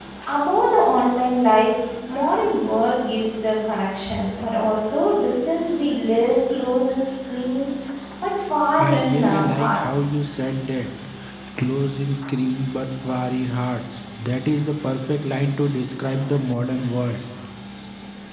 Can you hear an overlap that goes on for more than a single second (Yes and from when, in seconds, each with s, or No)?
Yes, from 8.8 s